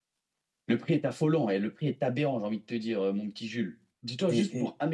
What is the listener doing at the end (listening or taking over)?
listening